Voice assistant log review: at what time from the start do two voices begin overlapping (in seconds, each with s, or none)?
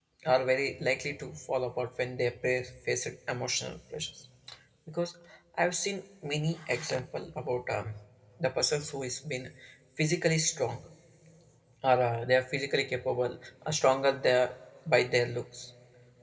none